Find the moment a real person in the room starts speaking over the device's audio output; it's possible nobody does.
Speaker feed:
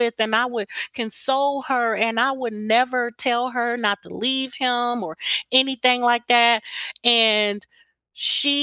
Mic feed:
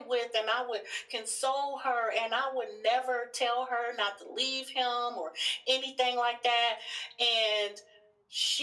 none

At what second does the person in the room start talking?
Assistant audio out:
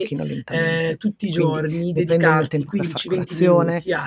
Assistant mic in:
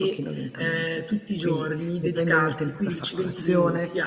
none

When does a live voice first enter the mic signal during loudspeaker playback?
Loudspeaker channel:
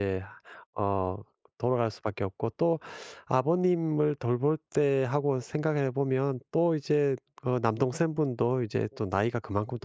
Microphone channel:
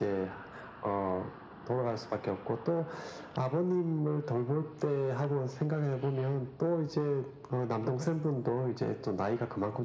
none

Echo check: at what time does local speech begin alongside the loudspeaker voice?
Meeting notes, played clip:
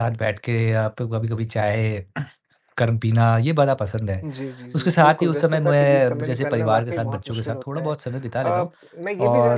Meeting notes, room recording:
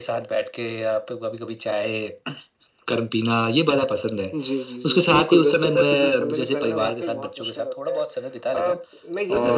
none

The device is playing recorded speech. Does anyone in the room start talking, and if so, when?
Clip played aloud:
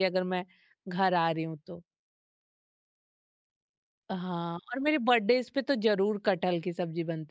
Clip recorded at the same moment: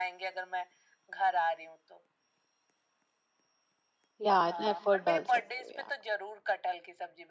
4.2 s

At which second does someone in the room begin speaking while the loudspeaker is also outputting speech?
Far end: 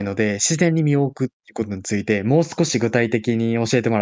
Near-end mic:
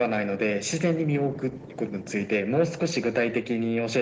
none

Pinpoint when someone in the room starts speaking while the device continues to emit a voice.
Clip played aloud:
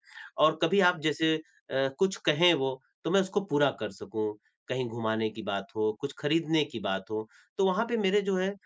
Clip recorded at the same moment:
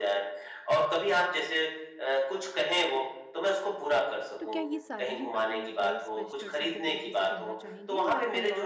4.4 s

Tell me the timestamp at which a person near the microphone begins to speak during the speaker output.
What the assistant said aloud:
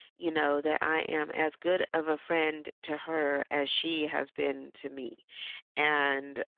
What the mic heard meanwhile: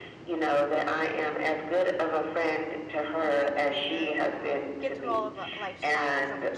3.2 s

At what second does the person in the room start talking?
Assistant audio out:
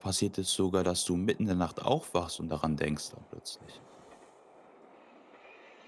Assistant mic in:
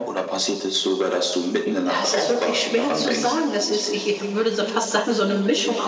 2.0 s

